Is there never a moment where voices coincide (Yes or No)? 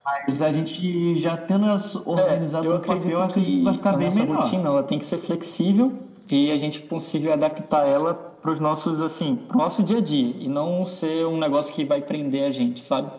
No